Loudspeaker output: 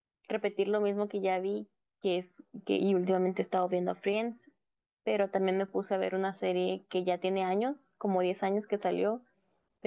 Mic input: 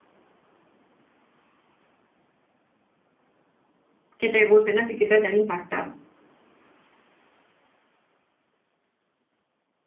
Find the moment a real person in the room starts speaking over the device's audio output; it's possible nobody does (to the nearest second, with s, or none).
4 s